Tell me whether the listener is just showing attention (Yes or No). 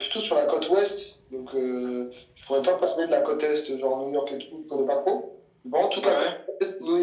Yes